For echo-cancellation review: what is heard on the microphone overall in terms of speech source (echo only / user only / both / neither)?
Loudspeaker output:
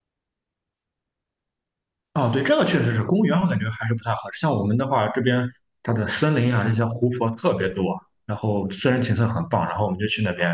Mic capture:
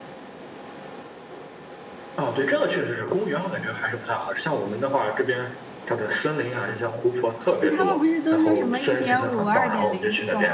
both